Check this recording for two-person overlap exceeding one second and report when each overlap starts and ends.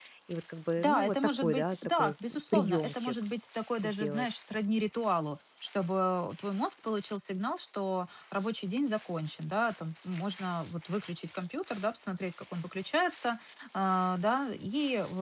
0.8-3.1

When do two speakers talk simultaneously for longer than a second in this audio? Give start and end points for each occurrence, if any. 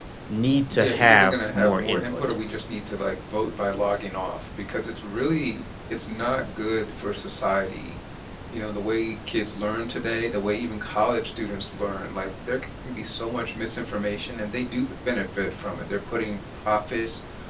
0.7-2.2

